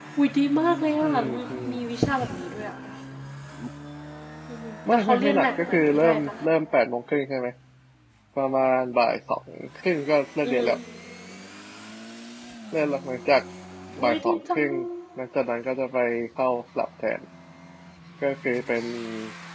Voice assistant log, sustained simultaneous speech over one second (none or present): present